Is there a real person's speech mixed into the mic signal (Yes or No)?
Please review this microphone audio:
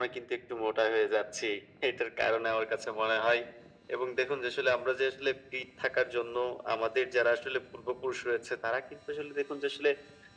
No